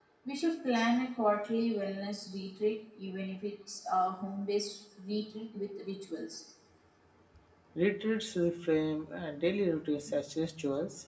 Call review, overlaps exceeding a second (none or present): none